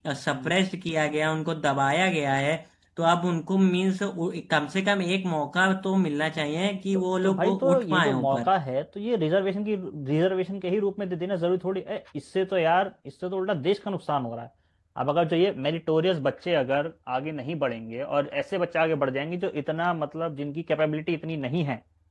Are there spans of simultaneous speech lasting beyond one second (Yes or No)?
Yes